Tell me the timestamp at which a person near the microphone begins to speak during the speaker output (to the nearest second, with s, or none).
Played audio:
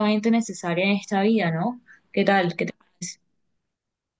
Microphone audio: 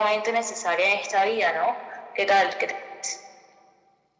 none